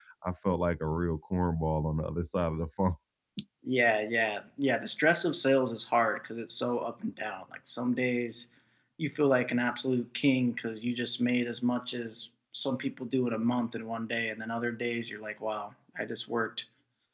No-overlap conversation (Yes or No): Yes